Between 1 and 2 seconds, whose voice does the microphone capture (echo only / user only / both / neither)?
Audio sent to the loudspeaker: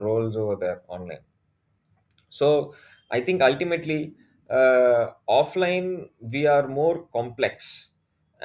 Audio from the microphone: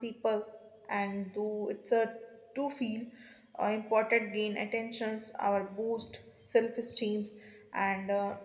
user only